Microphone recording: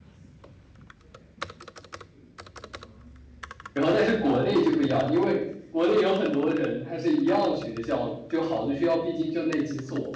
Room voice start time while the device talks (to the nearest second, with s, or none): 4 s